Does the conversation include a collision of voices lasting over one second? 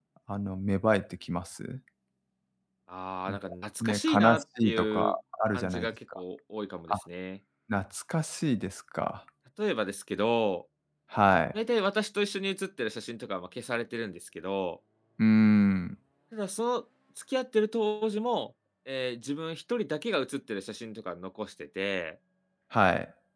Yes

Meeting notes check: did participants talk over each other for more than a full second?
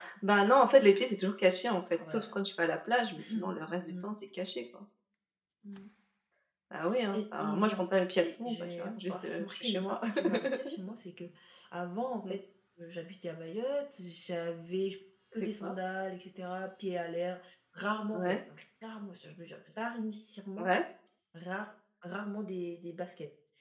Yes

